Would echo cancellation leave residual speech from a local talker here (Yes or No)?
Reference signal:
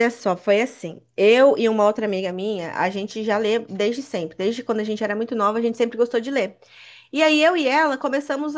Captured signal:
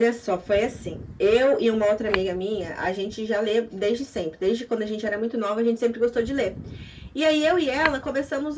No